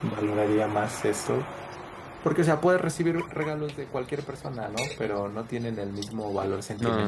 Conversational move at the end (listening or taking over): taking over